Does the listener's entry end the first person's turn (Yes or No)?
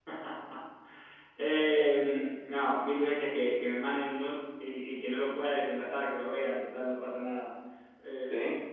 No